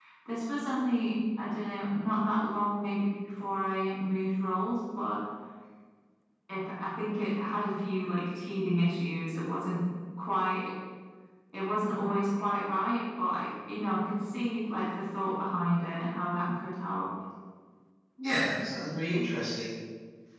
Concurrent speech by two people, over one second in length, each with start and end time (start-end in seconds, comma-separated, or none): none